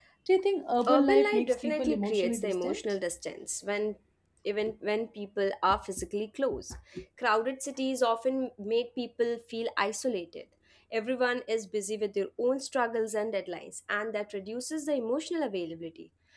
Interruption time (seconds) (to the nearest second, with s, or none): 1 s